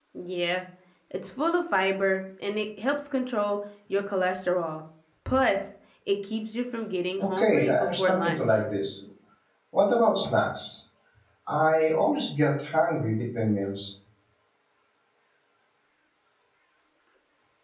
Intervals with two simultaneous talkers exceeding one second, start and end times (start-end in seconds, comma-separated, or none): 7.2-8.4